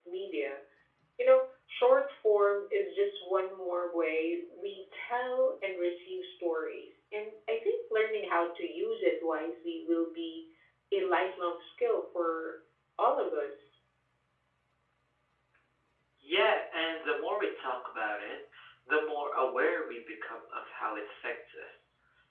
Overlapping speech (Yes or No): No